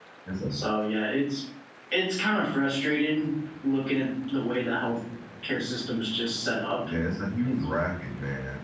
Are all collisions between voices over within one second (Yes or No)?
Yes